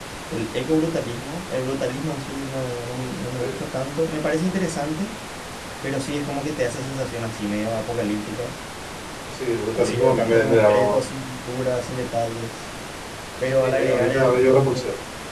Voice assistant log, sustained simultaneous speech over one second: present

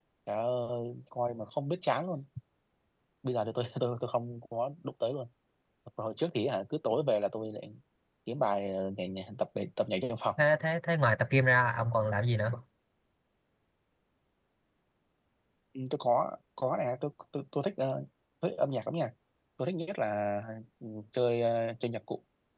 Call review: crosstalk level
none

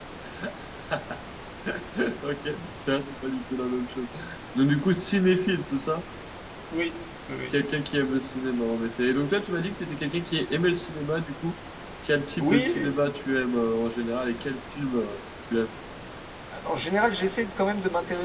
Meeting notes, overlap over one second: none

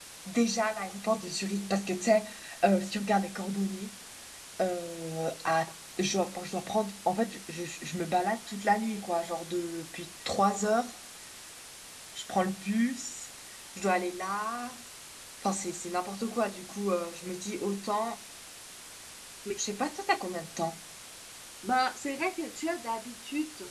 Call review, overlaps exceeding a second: none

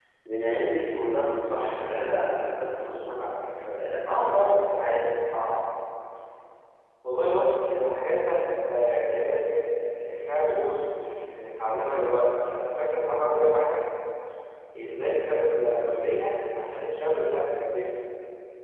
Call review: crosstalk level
present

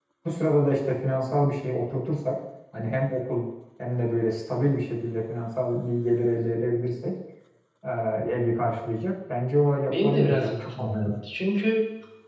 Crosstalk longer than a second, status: present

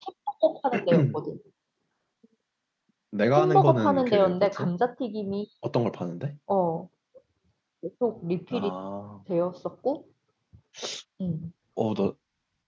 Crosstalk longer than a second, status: present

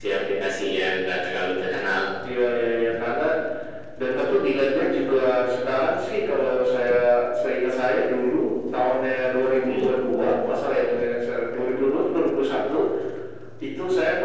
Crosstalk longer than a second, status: none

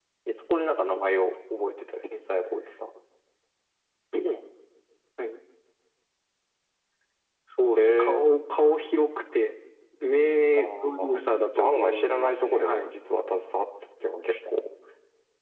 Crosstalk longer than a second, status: present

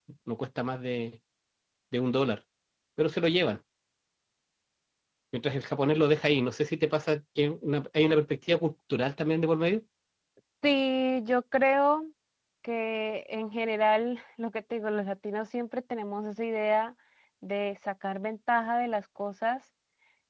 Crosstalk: none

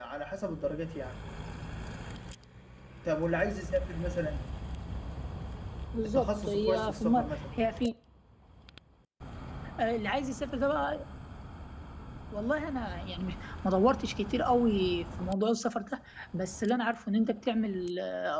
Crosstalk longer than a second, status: present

